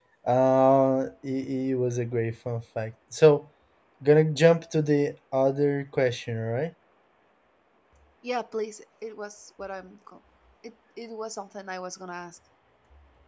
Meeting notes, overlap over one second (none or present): none